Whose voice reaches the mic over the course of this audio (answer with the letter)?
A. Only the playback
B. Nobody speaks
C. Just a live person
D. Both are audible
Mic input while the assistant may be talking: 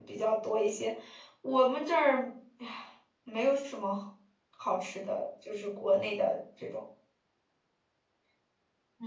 C